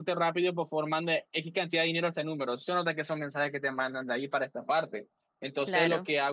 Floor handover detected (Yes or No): No